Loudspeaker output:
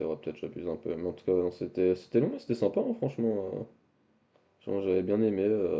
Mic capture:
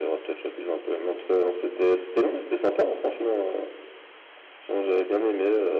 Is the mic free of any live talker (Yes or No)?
Yes